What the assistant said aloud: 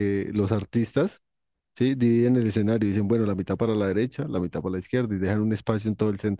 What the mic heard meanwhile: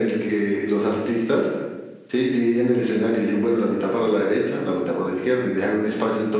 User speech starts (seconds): none

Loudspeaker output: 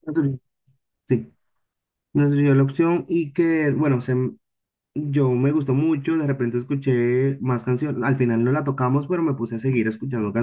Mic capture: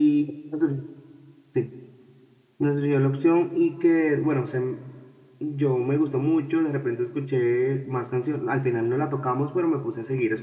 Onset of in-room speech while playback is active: none

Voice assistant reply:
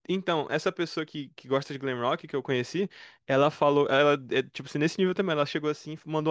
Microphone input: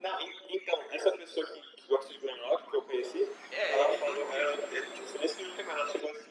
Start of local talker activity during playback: 4 s

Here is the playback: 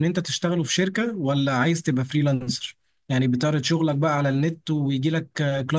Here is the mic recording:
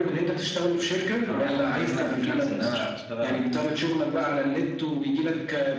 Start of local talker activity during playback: 1 s

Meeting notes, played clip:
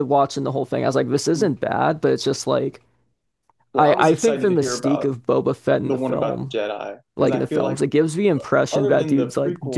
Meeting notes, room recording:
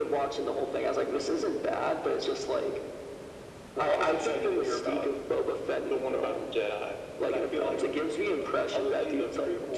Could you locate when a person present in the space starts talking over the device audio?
none

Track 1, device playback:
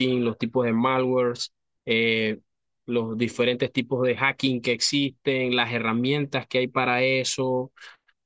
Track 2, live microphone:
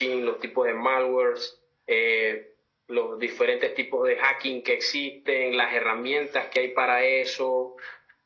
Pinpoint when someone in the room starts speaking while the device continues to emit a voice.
none

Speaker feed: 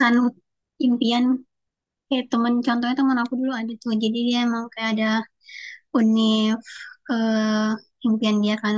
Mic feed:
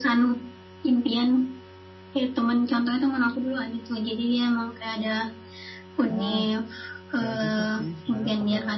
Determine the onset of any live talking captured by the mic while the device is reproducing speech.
6 s

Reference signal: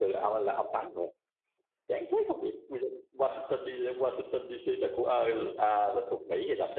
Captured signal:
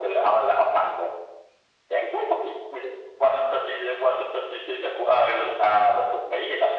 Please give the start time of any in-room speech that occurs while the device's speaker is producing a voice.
none

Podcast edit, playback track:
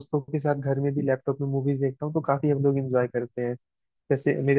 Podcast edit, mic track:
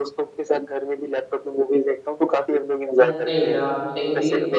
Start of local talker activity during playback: 3 s

